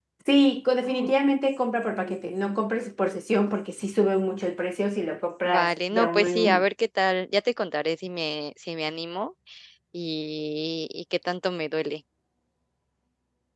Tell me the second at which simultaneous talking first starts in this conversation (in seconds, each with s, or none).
5.4 s